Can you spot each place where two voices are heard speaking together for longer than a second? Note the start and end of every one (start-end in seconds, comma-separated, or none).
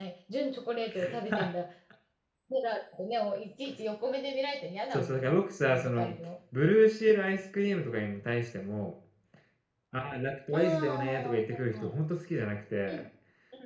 4.9-6.1, 10.5-11.9